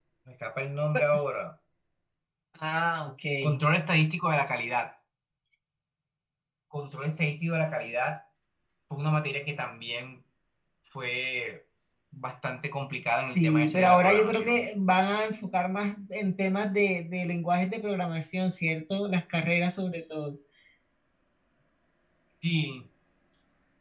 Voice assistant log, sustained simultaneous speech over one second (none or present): present